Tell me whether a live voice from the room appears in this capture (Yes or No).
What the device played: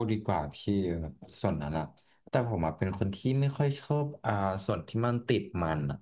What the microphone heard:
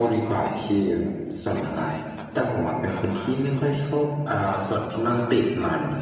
Yes